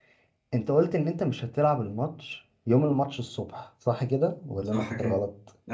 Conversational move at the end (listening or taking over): taking over